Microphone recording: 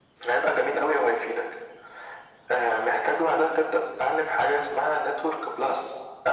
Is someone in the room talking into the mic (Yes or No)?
No